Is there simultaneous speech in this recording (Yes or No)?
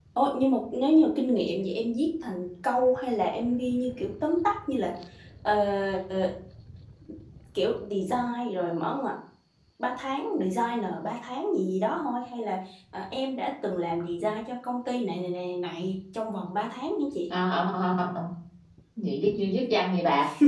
No